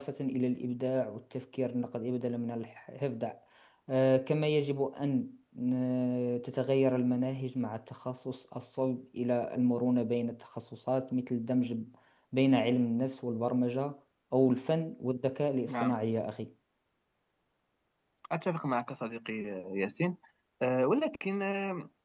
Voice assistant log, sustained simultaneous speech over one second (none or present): none